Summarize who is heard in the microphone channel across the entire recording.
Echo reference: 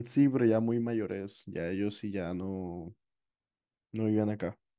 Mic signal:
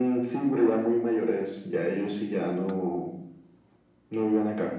echo only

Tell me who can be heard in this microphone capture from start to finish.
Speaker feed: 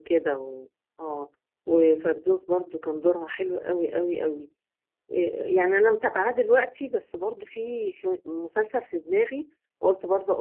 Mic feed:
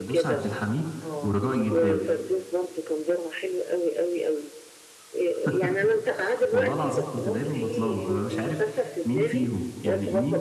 both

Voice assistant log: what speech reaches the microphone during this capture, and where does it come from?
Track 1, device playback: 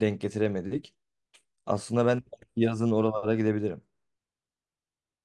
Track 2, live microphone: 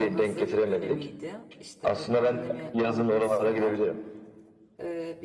both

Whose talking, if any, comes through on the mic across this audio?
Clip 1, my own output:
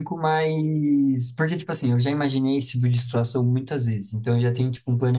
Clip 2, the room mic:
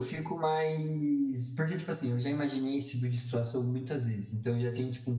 echo only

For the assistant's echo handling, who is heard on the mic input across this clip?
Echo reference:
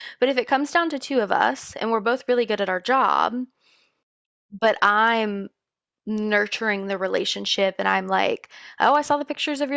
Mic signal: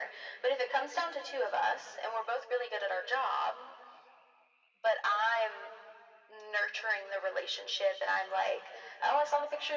echo only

